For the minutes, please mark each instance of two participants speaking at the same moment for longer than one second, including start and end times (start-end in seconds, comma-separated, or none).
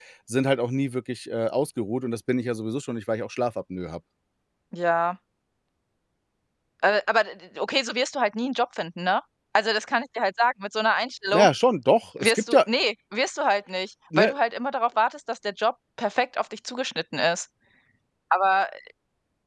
none